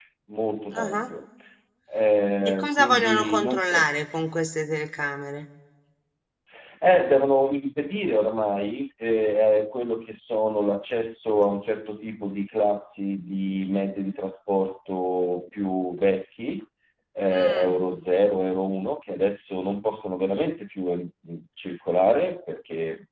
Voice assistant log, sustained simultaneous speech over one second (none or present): present